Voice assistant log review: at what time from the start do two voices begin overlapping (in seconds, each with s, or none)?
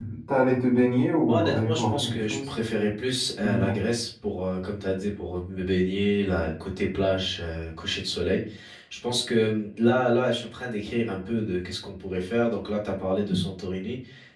1.2 s